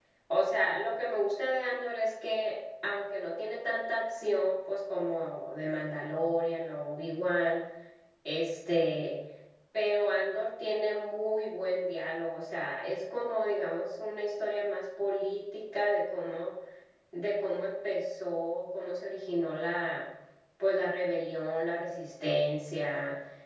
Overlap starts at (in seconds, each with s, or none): none